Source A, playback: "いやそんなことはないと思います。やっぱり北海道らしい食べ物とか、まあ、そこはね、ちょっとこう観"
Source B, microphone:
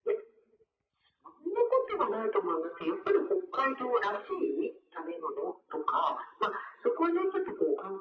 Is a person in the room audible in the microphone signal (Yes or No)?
No